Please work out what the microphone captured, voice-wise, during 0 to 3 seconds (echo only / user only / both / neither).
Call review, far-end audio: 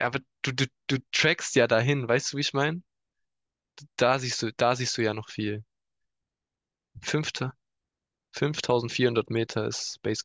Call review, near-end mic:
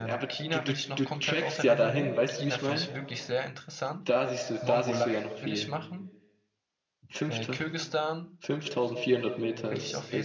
both